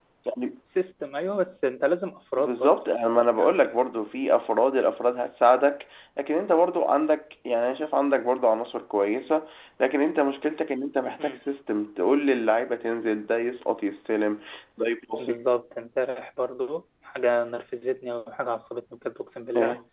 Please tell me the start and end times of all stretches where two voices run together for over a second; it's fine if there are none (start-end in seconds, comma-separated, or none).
none